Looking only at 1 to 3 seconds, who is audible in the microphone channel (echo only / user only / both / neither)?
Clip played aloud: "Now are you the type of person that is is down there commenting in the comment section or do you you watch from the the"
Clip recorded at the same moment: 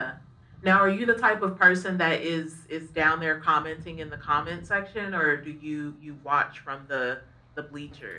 echo only